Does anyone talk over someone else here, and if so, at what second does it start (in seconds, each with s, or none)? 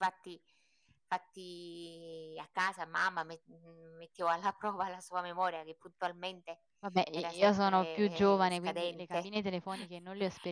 7.2 s